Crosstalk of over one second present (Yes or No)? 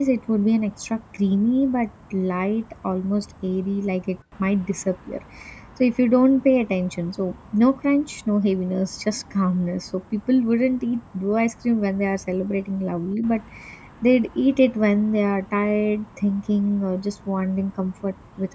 No